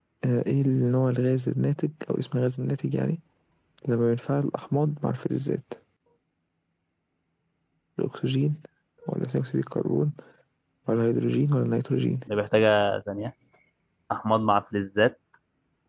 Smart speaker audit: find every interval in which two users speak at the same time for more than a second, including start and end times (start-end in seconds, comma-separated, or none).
none